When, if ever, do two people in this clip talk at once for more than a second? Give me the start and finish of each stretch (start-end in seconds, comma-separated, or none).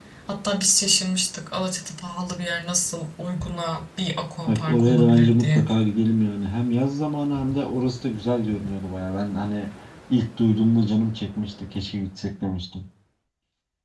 4.5-5.7